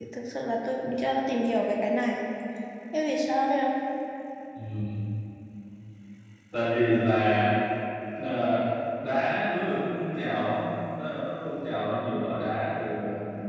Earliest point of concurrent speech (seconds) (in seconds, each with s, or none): none